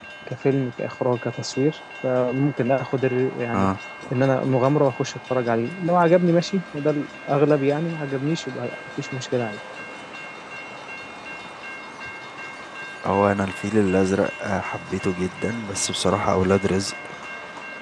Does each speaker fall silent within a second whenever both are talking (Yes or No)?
Yes